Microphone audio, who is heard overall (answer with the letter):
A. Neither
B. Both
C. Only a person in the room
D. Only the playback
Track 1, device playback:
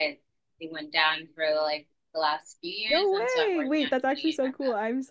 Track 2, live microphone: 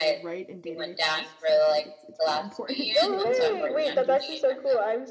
B